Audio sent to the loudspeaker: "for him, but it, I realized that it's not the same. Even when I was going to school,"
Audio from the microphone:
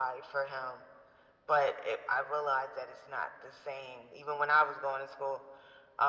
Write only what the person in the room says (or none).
none